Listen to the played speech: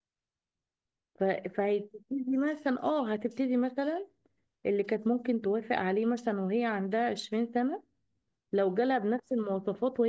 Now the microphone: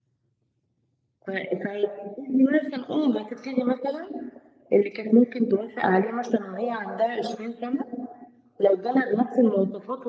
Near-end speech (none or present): none